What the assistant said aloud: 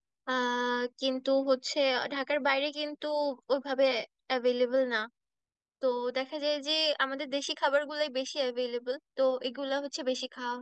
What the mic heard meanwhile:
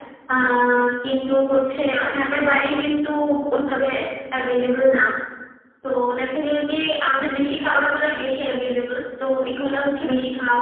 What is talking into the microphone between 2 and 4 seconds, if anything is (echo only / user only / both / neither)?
echo only